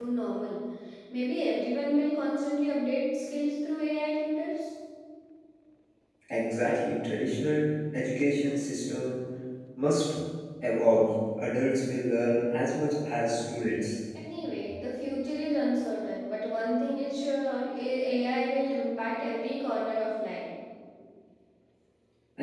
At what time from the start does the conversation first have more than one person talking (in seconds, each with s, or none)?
none